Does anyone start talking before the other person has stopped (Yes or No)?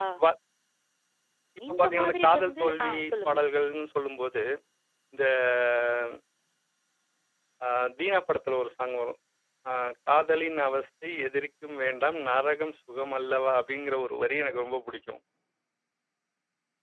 Yes